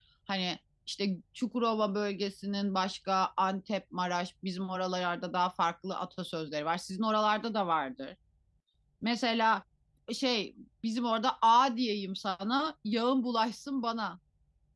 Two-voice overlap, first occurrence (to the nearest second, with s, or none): none